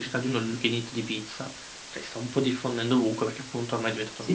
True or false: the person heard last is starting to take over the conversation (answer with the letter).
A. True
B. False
A